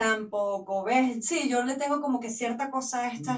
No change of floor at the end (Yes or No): No